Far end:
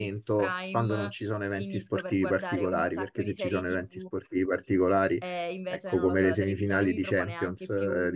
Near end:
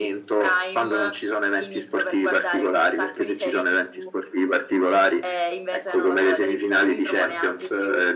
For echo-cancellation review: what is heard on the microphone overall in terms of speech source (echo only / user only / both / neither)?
echo only